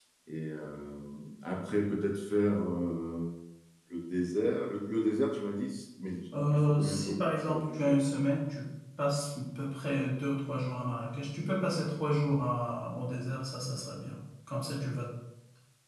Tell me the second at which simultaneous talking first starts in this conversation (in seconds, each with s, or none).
6.5 s